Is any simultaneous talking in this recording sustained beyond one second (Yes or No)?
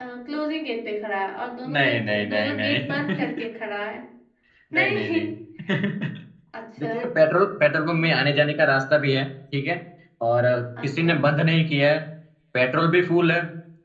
Yes